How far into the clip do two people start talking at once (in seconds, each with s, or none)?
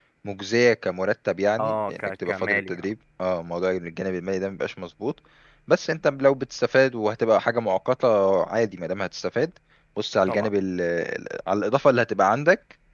1.6 s